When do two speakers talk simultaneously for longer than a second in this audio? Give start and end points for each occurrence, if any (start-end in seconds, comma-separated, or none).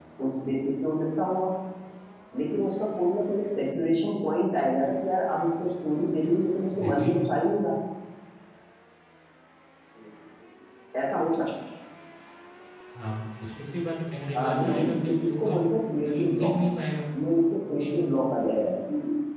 14.3-15.6